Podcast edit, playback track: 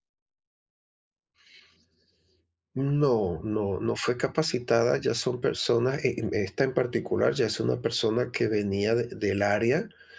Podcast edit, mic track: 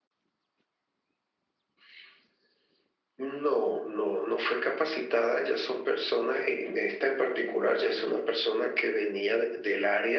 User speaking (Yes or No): No